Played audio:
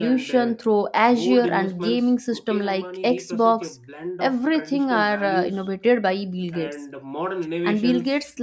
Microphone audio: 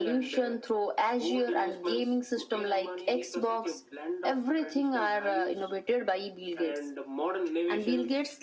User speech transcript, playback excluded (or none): none